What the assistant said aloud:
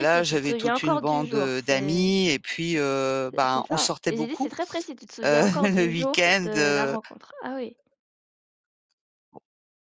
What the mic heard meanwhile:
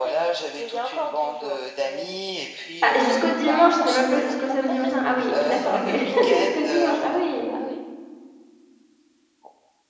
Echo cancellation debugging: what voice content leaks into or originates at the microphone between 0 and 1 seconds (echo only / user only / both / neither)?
echo only